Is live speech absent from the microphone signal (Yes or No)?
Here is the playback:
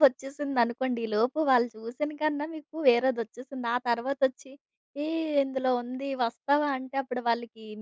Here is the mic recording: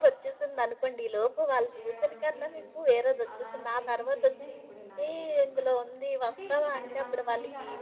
No